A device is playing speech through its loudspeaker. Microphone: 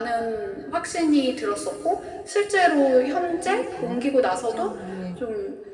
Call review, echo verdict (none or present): present